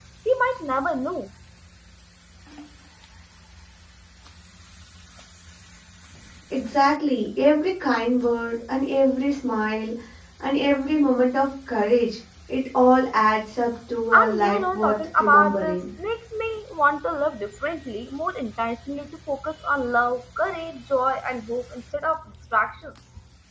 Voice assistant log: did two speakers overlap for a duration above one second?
Yes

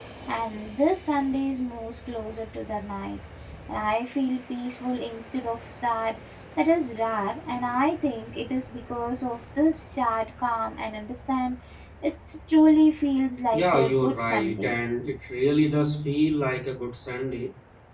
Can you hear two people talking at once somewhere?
Yes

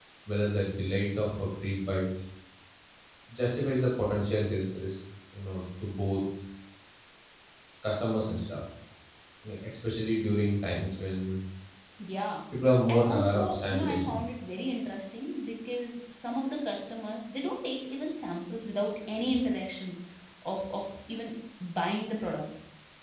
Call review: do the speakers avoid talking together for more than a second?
No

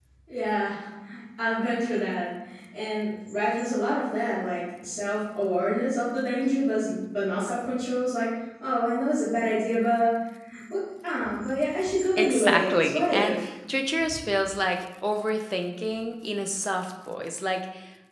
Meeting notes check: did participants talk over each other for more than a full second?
Yes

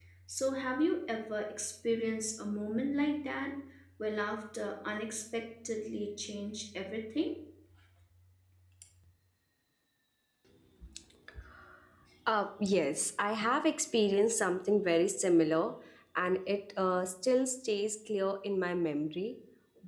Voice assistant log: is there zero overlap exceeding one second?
Yes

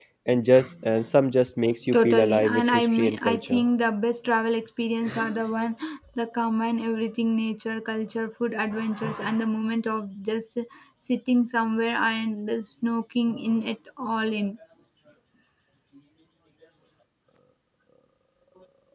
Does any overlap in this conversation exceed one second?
Yes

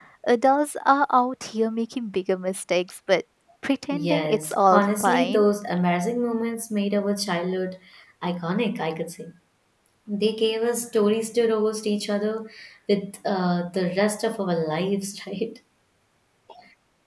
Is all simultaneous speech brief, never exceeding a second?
No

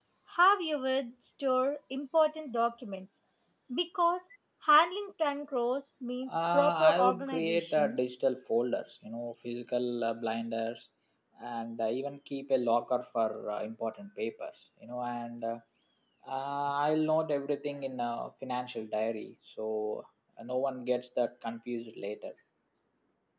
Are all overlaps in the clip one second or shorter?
No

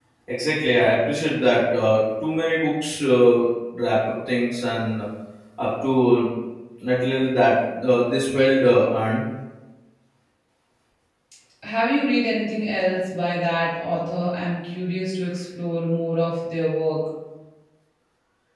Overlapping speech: No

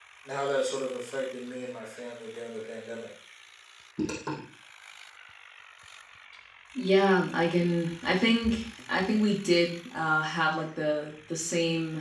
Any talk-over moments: No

